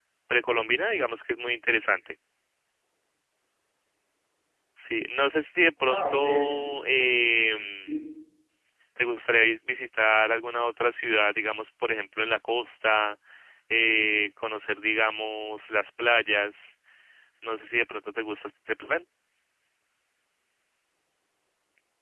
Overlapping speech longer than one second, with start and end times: 5.9-7.2

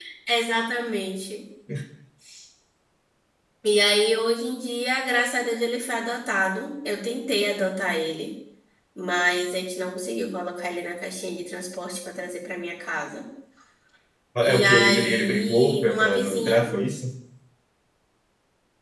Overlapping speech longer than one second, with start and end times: 14.4-16.6

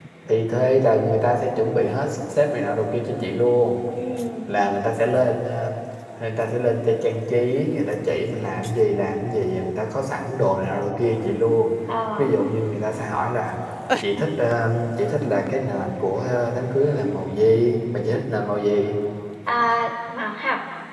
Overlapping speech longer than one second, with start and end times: none

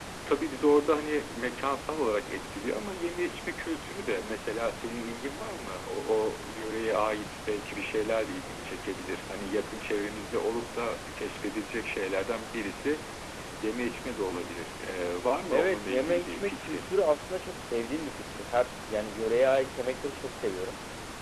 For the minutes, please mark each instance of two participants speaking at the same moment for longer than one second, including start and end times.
15.5-16.9

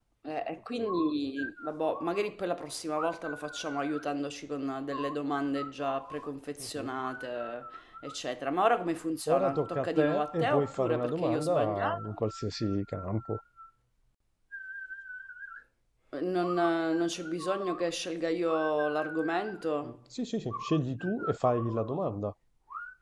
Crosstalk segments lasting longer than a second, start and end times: 9.4-12.2

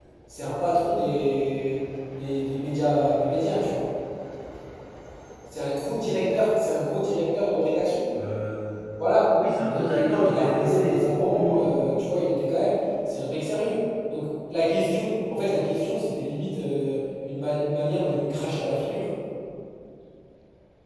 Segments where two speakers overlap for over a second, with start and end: 9.7-11.7

